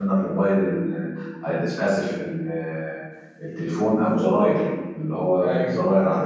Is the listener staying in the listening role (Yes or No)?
Yes